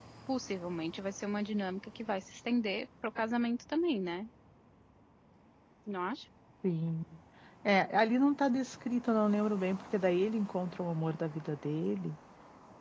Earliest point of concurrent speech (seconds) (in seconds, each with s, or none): none